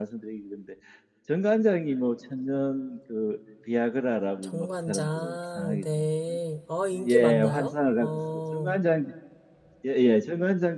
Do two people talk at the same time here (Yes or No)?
Yes